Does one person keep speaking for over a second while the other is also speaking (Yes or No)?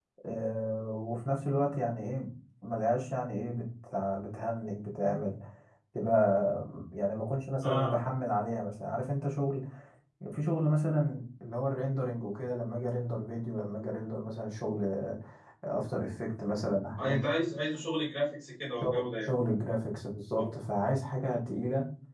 No